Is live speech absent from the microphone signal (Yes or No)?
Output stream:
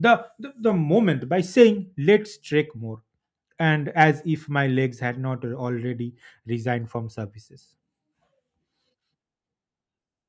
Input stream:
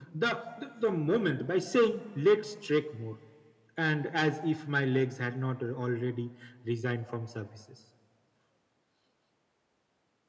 Yes